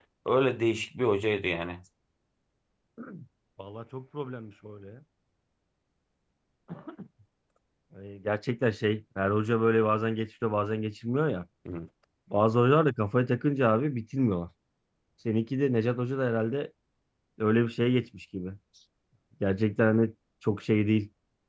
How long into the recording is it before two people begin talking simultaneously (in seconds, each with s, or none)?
none